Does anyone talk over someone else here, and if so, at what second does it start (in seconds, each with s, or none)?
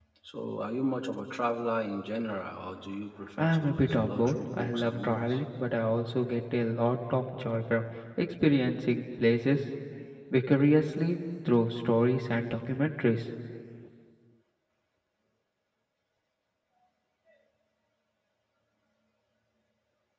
3.4 s